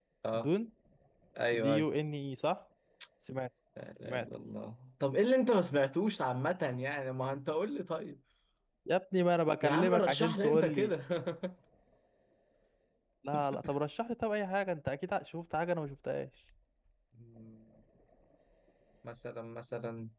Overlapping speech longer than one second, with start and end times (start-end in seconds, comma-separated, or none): 9.6-10.9